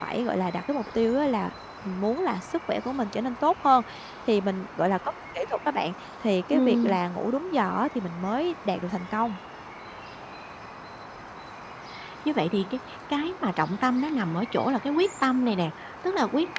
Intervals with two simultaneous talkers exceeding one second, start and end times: none

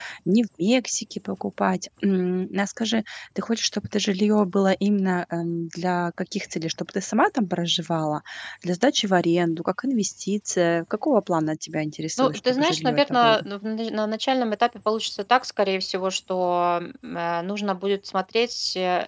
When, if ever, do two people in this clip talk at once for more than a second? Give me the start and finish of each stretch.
12.2-13.4

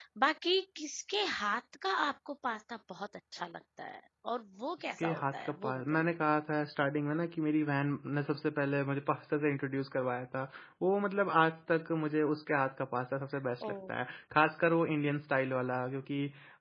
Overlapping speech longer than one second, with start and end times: 4.8-6.1

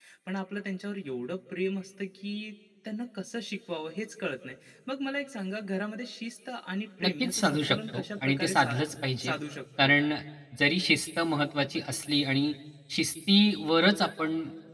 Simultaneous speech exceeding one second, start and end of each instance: 7.0-8.8

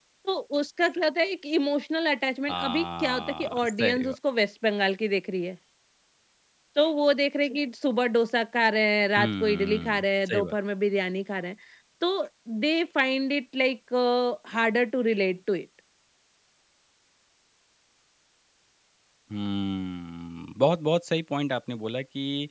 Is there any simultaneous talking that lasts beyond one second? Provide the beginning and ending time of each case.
2.5-4.1, 9.2-10.6

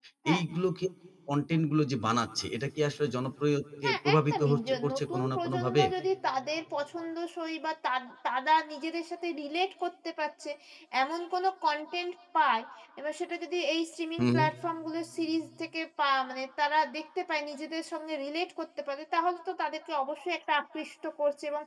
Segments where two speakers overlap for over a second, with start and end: 3.8-5.8

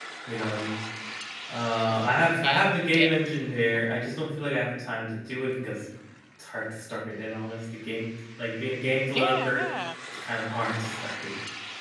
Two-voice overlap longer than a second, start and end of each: 1.9-3.1

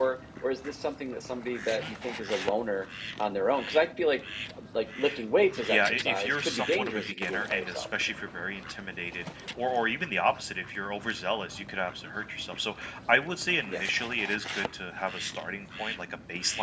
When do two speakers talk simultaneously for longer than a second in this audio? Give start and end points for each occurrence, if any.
5.6-7.8

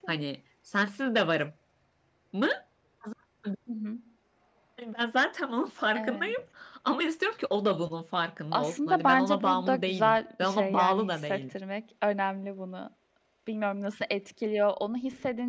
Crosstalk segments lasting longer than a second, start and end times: 8.5-11.5

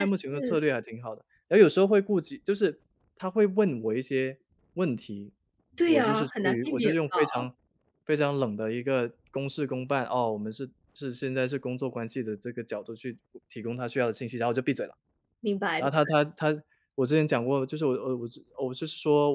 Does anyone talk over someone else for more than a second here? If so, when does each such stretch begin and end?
5.9-7.2

